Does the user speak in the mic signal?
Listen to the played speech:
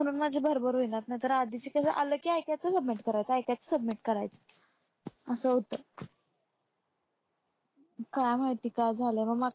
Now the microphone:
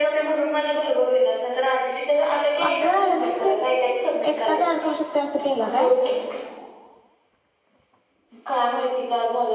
Yes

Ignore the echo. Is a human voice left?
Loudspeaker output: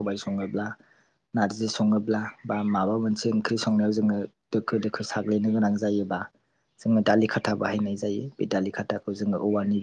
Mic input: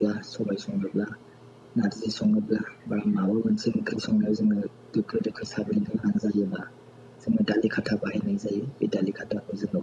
No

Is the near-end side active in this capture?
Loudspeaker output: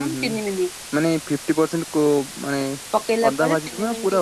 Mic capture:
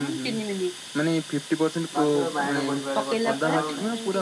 Yes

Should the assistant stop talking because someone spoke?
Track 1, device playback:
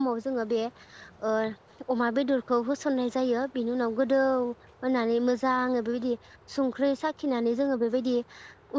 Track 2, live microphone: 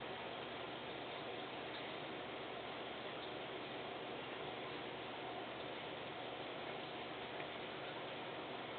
No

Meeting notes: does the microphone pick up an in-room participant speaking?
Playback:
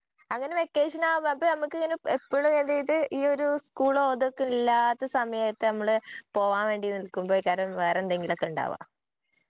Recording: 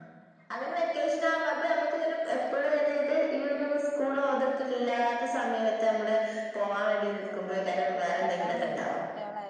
Yes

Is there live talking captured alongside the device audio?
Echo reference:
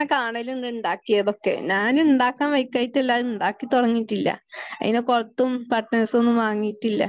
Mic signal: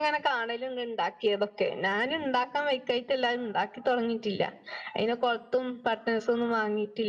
No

